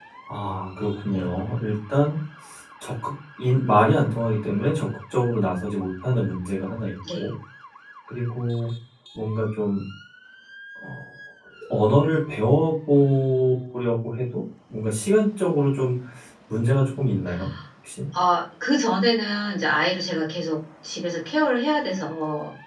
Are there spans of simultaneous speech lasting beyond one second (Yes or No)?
No